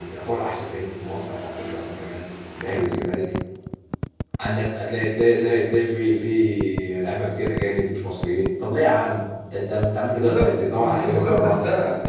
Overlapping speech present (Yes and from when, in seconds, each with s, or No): Yes, from 10.3 s